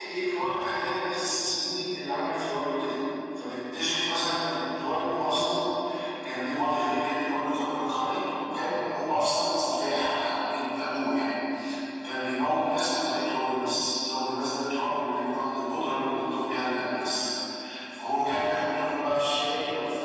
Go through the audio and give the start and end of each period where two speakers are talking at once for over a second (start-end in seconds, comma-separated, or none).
none